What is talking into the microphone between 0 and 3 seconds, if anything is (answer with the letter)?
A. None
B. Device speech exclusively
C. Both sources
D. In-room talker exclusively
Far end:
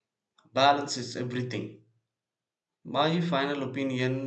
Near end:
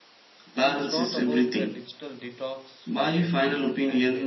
C